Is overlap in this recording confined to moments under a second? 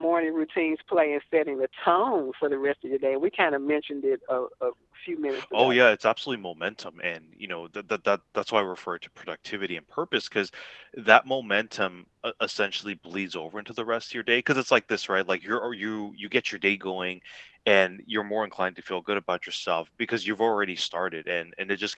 Yes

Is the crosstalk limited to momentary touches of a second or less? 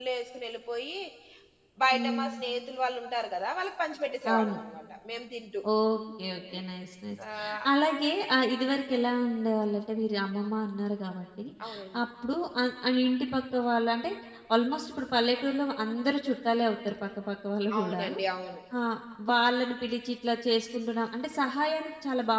Yes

